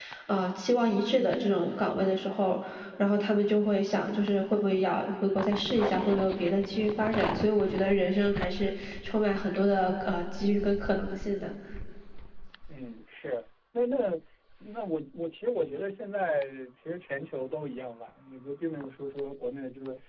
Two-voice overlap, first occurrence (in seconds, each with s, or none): none